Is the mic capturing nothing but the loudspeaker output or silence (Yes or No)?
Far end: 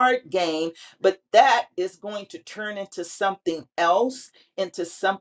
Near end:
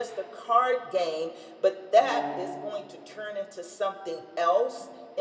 No